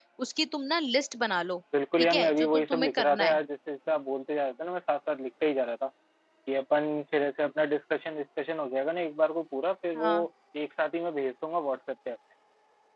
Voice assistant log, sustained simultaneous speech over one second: present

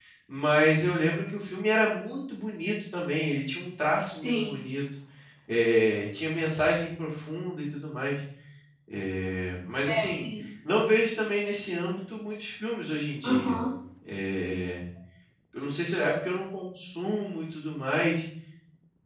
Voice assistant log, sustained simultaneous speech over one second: none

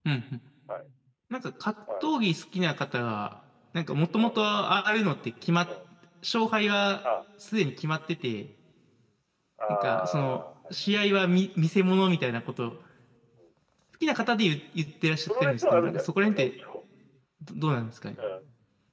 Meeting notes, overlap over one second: present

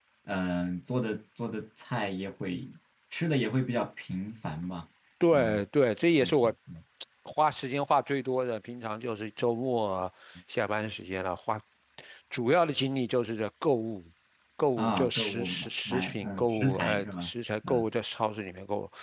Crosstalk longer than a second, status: present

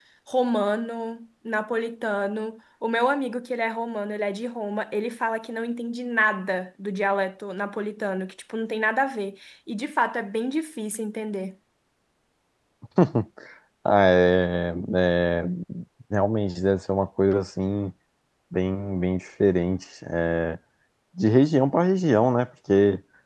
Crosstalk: none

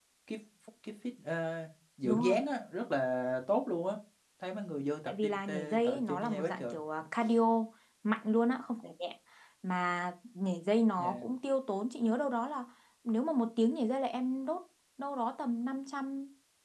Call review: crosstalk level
present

